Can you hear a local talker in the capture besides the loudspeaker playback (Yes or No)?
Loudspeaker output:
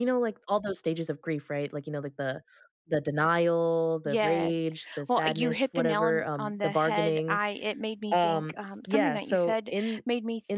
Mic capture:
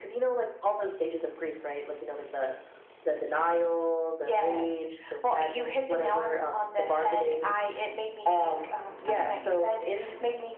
No